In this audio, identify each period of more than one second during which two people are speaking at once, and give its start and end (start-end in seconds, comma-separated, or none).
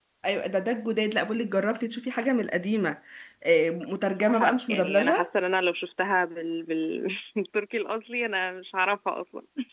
4.0-5.3